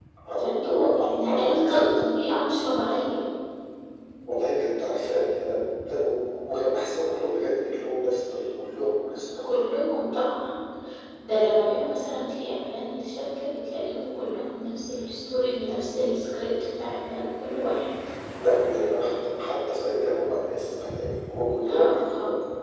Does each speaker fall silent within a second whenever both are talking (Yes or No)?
No